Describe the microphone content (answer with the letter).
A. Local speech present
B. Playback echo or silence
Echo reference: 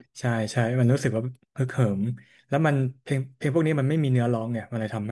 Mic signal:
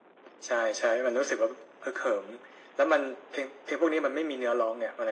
B